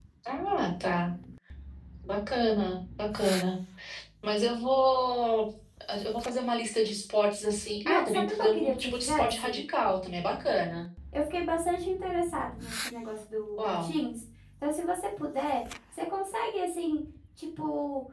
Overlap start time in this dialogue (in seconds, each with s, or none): 7.8 s